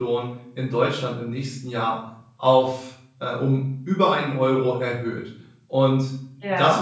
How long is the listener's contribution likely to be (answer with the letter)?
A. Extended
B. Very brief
B